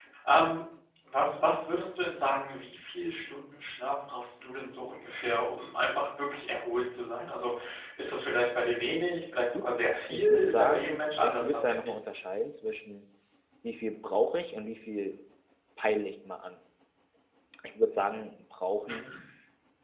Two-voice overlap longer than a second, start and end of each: 10.1-11.7

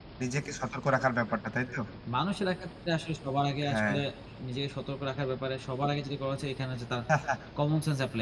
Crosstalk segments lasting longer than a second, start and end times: none

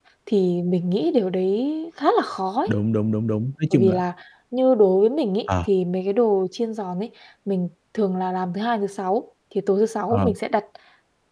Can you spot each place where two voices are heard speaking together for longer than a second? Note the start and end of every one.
none

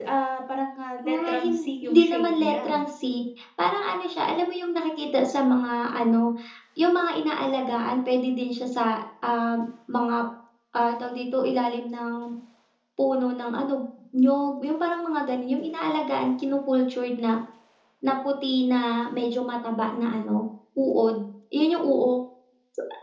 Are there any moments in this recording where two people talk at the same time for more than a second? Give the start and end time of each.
1.0-2.8

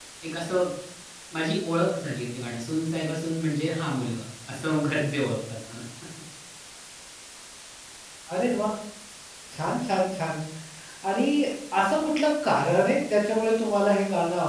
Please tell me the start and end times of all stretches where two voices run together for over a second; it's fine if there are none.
none

